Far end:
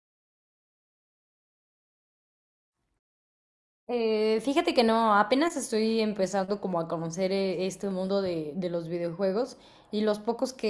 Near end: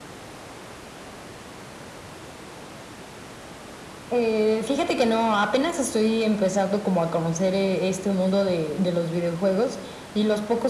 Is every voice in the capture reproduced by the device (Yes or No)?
Yes